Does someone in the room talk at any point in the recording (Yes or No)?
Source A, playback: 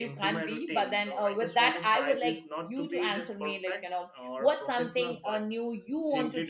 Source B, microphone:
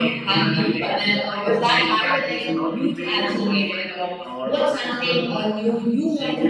No